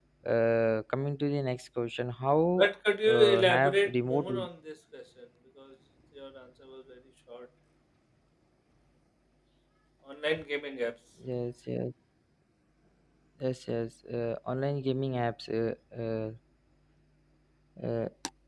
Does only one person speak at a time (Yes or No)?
No